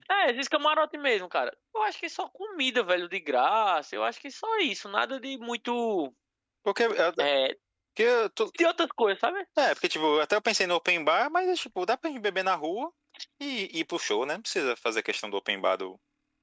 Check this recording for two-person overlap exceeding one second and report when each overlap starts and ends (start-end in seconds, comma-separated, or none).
none